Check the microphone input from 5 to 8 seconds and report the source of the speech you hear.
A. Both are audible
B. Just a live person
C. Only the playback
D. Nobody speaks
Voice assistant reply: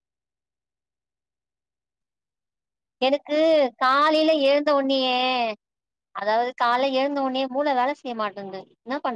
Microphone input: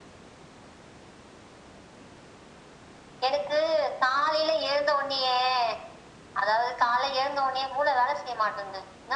C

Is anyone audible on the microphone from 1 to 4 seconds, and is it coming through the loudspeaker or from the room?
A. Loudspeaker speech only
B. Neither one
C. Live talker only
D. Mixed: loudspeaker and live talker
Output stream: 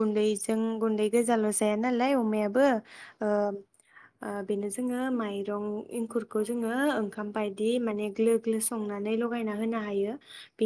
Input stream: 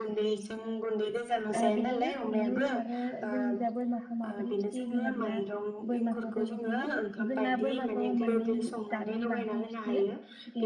D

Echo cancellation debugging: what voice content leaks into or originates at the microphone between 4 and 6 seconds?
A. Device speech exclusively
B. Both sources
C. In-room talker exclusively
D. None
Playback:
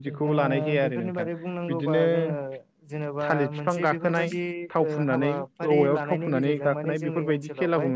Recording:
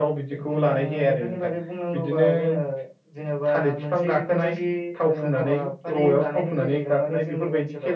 A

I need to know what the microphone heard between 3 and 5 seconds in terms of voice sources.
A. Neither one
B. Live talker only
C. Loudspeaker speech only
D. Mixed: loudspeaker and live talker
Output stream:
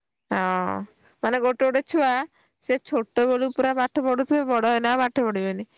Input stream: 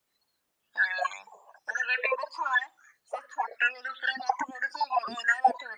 C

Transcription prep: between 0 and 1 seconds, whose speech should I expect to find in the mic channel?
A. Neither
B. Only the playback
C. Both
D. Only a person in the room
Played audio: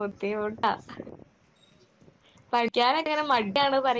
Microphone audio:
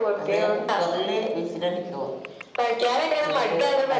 C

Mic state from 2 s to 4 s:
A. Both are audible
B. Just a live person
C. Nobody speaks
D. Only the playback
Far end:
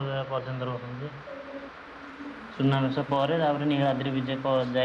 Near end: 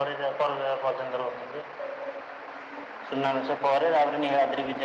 D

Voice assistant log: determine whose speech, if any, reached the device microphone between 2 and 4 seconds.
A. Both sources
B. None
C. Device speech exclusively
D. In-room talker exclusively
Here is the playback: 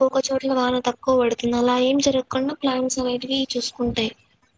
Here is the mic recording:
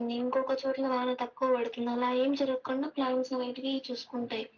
C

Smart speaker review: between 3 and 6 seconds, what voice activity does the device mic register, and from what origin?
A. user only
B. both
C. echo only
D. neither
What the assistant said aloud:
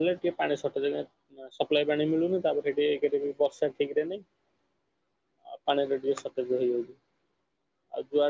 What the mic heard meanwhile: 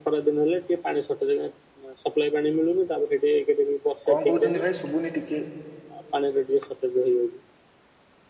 B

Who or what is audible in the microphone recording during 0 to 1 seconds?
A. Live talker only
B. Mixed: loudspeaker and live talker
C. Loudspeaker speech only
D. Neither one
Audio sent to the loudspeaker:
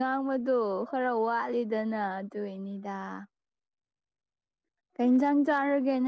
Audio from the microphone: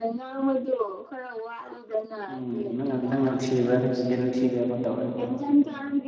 C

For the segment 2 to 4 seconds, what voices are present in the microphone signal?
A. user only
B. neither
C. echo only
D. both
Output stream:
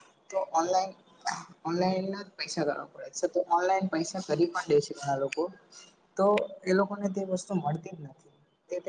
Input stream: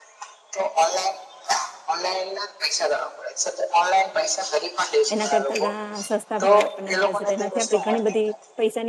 C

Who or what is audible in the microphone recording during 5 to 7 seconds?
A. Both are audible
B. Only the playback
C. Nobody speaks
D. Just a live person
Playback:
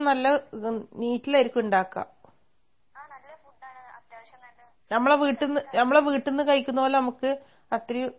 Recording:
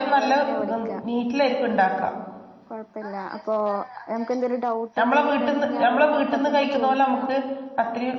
A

